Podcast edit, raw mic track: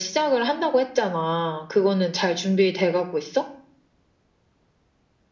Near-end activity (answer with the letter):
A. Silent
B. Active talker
A